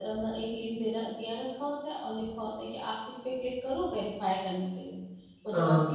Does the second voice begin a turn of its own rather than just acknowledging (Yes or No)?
No